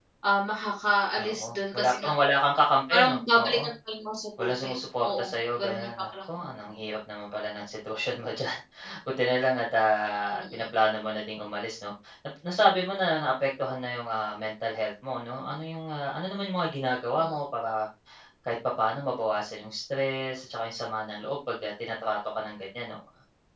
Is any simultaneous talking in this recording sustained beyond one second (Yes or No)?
Yes